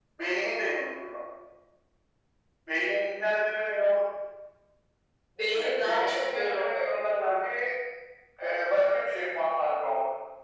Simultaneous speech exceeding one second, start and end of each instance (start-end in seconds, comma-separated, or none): 5.5-6.9